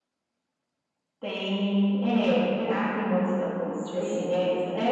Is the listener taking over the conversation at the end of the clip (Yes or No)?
No